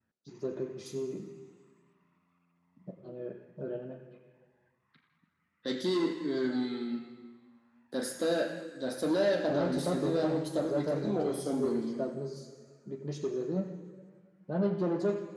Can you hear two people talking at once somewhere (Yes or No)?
Yes